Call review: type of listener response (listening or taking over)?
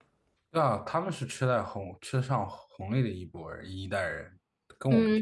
taking over